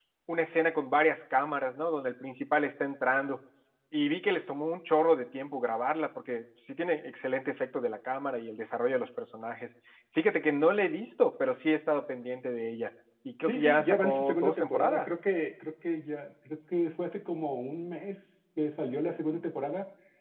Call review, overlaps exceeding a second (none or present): present